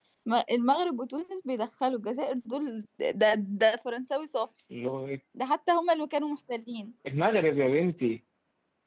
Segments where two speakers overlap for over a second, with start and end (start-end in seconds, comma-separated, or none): none